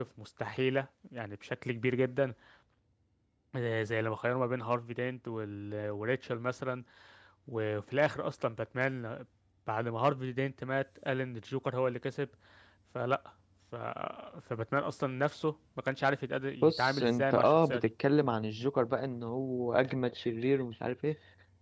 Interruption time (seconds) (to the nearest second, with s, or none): 17 s